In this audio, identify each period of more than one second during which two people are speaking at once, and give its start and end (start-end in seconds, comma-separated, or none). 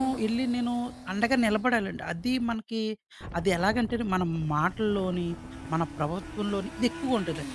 none